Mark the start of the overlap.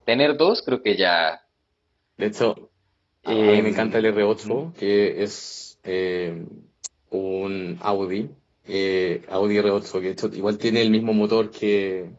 3.3 s

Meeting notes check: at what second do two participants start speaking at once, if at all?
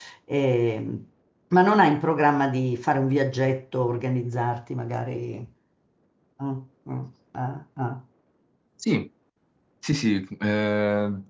none

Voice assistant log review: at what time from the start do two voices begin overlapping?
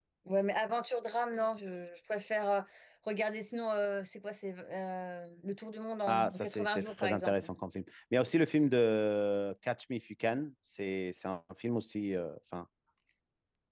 6.1 s

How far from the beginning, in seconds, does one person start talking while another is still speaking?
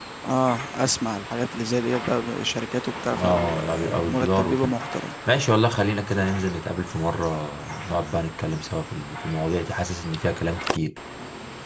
3.1 s

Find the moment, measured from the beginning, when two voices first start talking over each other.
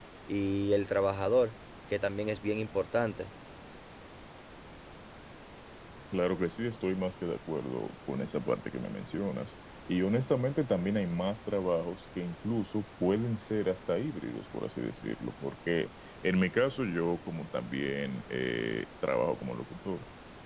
none

